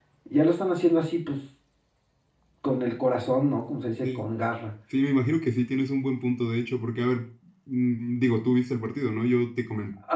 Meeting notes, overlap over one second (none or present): none